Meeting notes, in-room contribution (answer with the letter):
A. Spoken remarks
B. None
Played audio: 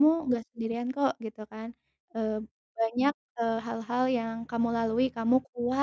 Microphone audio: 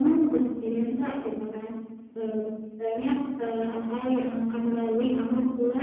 B